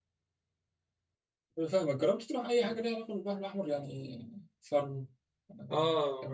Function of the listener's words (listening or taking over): taking over